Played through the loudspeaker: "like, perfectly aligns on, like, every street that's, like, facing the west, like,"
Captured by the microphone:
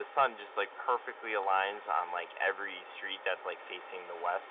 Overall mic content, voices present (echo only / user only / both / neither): echo only